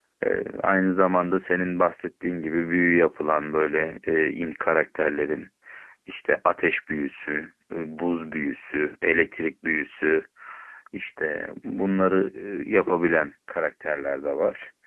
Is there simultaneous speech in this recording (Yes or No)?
No